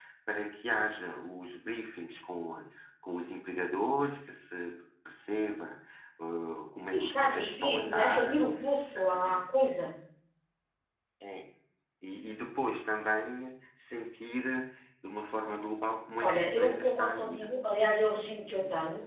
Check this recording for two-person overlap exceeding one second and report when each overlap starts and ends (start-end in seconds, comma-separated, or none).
6.9-8.4, 16.2-17.5